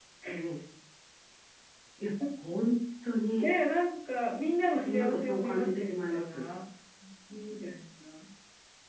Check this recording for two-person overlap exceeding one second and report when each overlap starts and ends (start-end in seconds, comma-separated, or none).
4.8-6.5